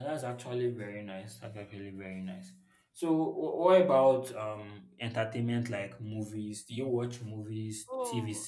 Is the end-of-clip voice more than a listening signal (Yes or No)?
Yes